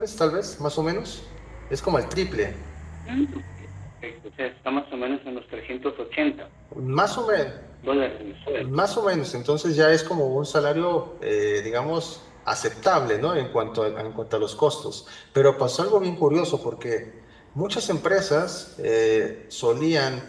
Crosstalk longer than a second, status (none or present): none